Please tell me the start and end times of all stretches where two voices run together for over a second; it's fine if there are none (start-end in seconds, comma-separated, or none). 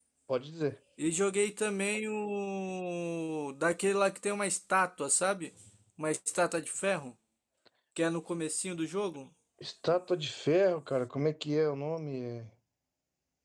none